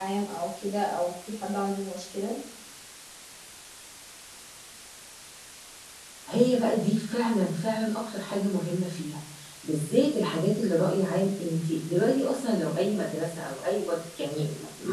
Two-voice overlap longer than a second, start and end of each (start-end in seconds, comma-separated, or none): none